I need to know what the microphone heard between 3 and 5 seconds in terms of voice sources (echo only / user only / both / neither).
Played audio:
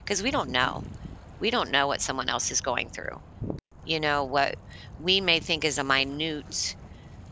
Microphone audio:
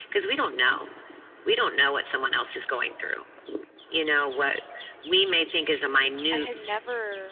echo only